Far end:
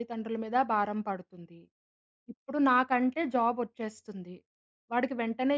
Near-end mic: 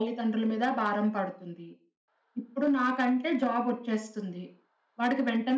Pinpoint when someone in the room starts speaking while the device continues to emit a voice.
none

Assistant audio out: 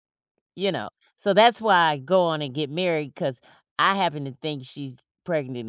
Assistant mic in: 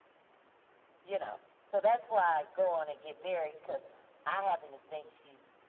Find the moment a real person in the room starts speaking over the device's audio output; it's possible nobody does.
none

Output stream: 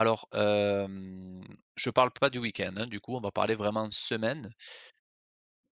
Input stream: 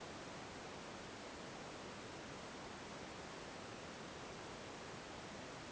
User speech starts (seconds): none

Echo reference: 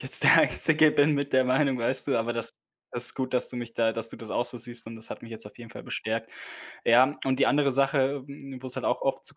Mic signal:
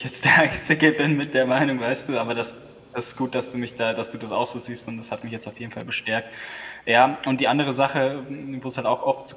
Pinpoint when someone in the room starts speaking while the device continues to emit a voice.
none

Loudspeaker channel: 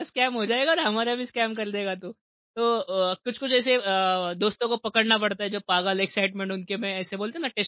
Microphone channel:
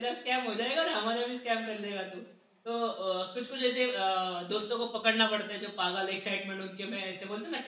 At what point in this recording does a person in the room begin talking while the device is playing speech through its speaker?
none

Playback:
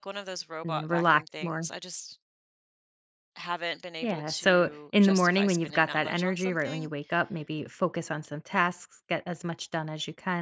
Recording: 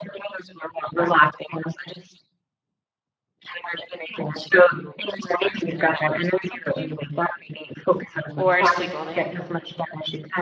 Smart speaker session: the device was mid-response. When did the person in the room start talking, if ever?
8.3 s

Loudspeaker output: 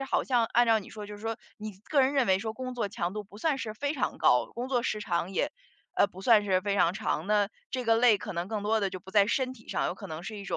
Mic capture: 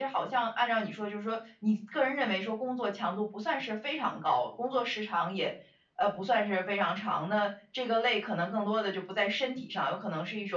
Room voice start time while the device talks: none

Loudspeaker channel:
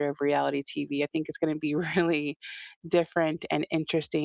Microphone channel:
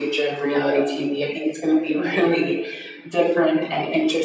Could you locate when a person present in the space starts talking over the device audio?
none

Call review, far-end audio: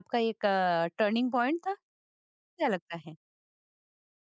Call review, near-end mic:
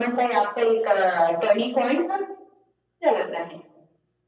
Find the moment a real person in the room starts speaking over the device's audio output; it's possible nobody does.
none

